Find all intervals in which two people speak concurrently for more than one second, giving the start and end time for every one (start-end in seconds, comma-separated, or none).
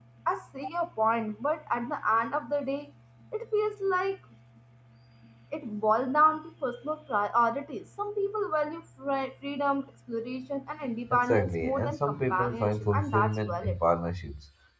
11.1-13.8